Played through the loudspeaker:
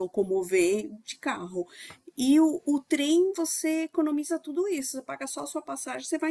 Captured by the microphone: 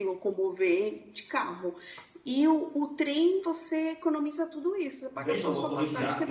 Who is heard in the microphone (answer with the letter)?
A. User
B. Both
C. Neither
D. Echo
B